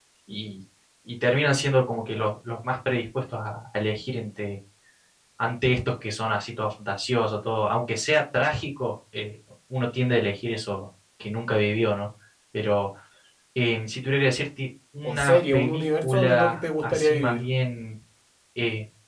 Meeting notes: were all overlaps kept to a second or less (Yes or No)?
No